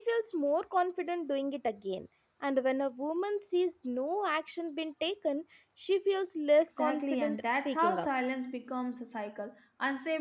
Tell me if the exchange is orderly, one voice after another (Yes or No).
No